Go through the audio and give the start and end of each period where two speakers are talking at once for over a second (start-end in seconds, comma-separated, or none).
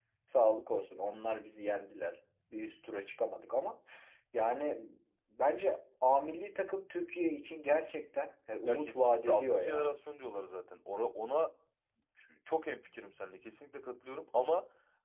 8.7-9.9